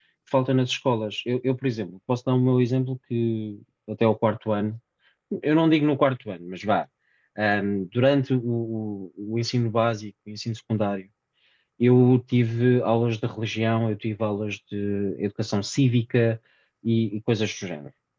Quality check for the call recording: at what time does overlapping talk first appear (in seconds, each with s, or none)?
none